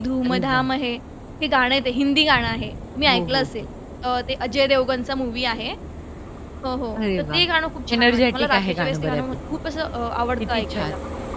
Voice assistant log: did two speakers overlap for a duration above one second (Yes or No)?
Yes